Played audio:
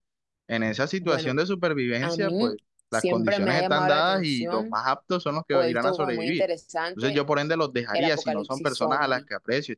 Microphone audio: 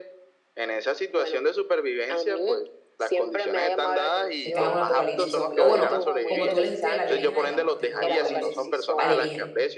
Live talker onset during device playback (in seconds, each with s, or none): 4.4 s